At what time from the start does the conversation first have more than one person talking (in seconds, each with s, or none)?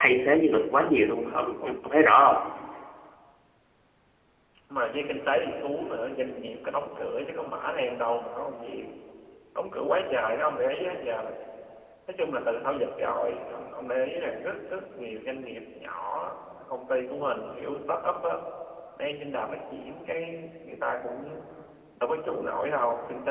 none